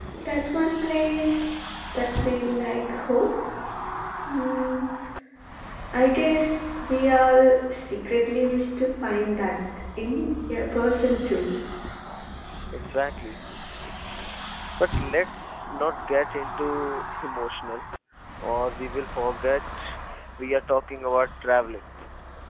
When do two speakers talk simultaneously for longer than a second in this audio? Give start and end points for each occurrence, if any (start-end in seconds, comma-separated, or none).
none